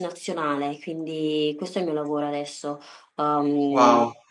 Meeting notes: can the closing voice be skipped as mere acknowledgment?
No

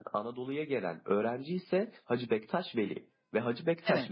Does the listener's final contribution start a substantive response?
No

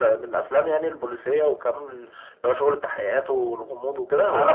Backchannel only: No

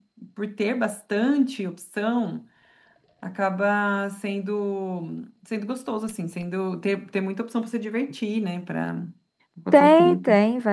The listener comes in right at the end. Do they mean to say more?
Yes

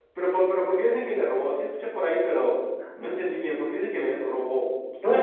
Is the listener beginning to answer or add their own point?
Yes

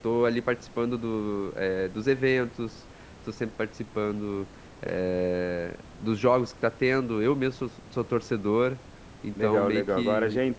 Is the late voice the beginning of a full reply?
Yes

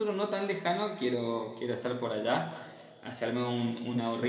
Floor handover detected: No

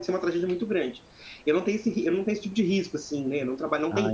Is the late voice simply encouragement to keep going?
Yes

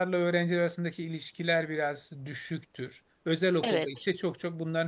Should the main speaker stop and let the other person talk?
No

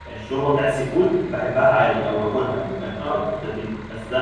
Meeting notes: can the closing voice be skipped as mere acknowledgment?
Yes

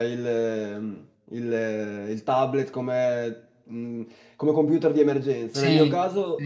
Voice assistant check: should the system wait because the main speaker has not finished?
Yes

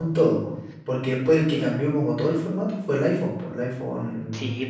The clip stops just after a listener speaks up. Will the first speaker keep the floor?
No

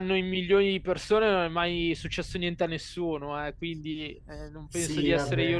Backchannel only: No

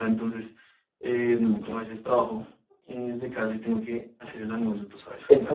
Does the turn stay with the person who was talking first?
No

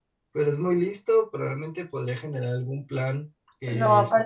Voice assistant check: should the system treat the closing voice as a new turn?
Yes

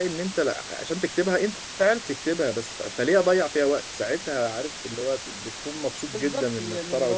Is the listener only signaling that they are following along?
No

